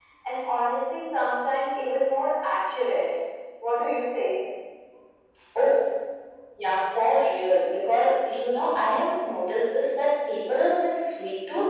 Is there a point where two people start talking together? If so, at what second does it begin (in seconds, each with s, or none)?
none